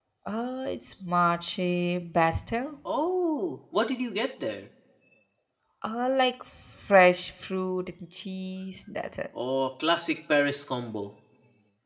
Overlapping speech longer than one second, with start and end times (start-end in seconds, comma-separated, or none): none